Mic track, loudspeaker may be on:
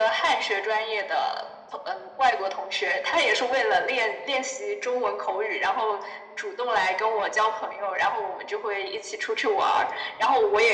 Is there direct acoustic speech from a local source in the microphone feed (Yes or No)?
No